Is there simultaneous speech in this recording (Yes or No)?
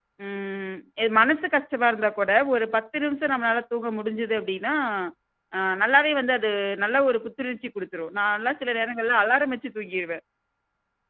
No